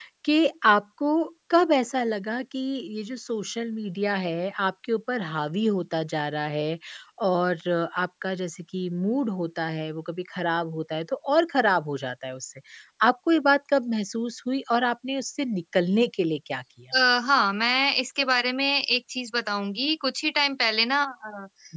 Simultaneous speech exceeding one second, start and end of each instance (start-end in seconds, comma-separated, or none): none